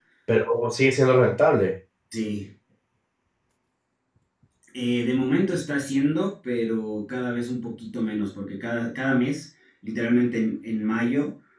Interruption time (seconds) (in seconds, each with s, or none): none